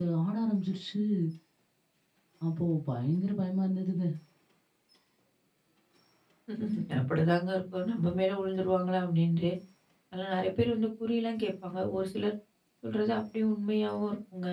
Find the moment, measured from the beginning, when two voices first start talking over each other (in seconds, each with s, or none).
none